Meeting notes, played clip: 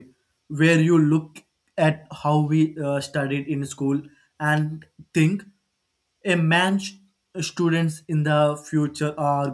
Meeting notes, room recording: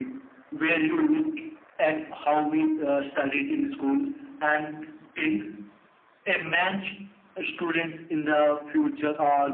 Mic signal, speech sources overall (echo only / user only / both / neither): echo only